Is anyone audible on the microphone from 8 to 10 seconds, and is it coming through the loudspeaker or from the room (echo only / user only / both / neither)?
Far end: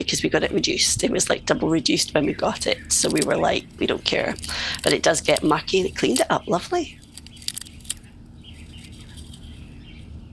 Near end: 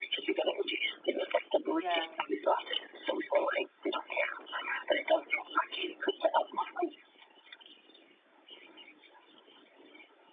neither